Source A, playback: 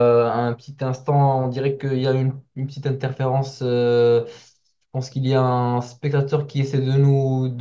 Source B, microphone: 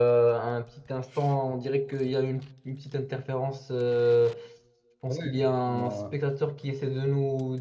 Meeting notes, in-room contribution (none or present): present